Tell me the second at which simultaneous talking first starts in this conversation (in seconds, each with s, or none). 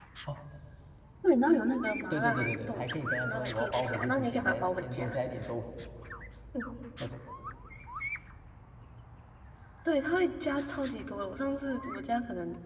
2.1 s